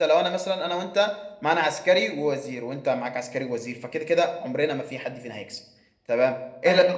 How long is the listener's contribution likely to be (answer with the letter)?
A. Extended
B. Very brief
B